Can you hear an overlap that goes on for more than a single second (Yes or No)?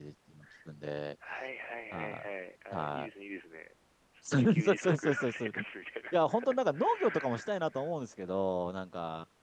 Yes